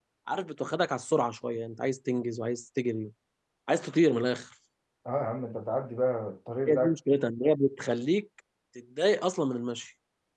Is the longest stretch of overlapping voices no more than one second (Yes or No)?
Yes